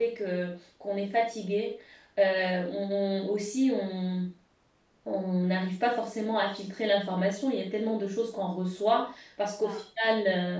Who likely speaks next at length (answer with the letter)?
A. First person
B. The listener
A